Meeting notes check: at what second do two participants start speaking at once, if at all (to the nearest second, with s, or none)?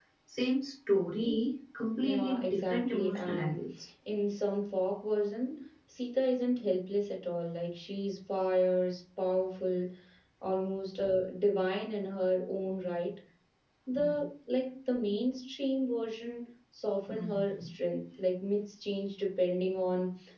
2 s